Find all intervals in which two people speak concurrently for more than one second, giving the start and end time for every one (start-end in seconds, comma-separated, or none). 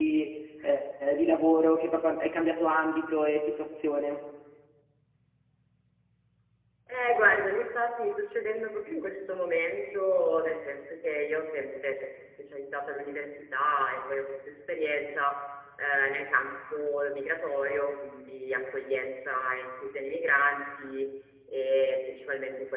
none